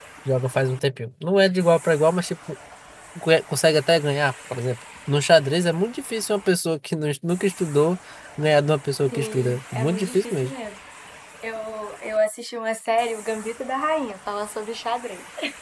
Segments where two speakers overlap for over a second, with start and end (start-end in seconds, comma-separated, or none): 9.1-10.5